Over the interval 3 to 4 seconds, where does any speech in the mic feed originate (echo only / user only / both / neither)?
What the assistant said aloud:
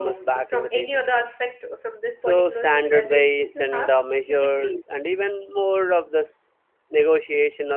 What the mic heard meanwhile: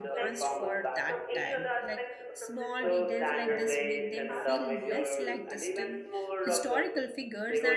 both